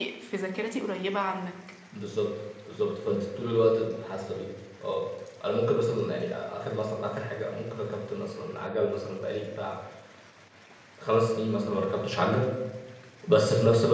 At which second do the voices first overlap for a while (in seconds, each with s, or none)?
none